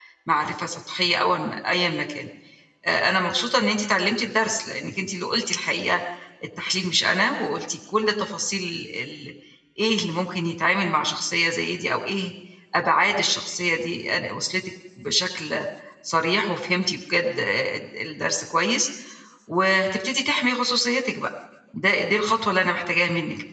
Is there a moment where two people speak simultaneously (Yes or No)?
No